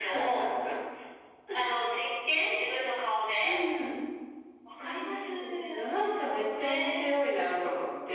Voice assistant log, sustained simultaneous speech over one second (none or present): present